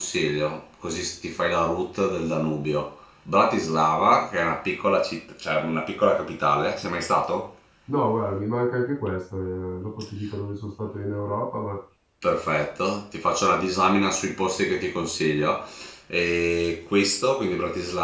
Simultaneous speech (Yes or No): No